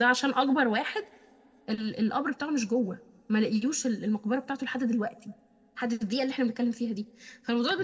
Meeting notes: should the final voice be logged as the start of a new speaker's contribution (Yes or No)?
No